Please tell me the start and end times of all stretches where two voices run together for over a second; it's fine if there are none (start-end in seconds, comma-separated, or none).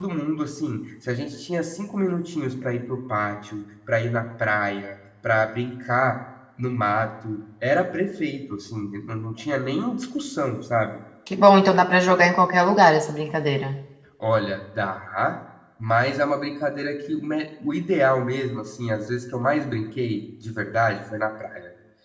none